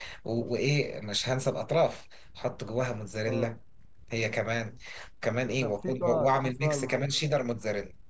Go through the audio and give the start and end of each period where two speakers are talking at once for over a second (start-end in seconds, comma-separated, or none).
5.6-7.1